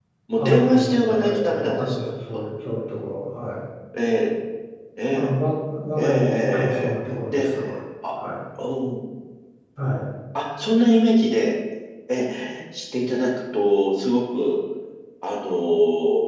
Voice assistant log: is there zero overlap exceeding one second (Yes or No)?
No